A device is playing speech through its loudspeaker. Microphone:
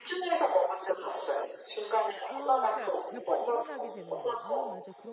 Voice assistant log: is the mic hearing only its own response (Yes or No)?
No